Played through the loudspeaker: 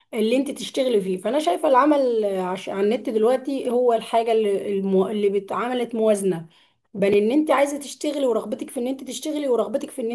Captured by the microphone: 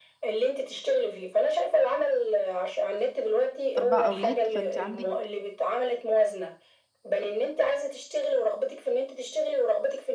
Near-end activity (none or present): present